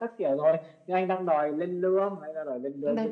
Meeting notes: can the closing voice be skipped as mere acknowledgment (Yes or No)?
No